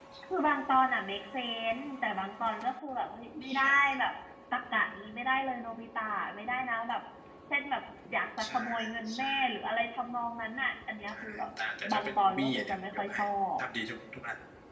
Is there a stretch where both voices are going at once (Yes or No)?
Yes